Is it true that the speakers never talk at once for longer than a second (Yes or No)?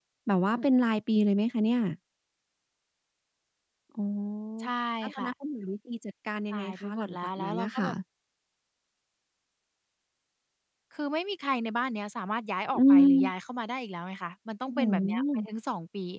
No